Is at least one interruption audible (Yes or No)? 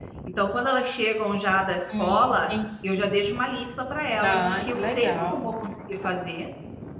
Yes